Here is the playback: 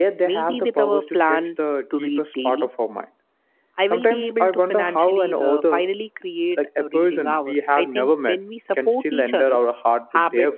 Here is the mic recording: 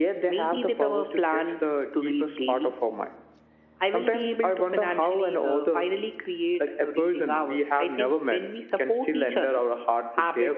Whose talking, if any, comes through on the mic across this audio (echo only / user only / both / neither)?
echo only